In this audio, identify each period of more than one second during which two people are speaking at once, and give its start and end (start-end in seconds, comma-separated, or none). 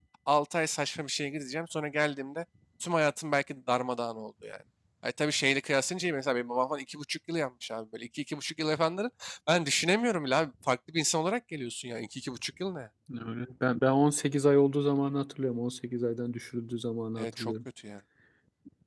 none